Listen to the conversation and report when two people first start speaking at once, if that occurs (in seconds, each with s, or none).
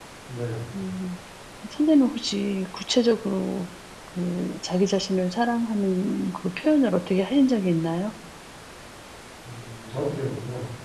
none